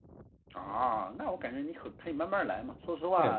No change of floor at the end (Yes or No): No